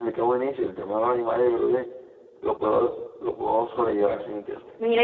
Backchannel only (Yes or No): No